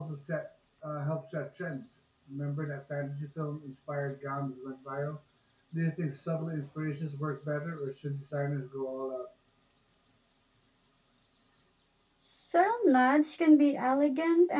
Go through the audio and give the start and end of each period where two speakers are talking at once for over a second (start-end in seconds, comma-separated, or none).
none